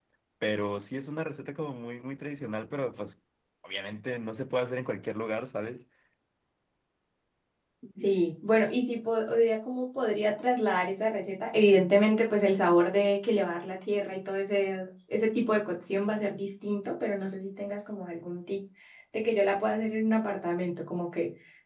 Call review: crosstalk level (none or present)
none